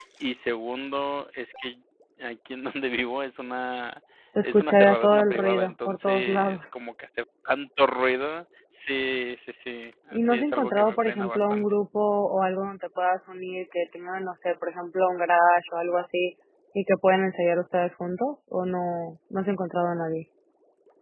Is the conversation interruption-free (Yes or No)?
No